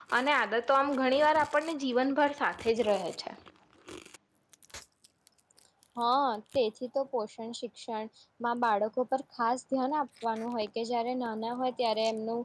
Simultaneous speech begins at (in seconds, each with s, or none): none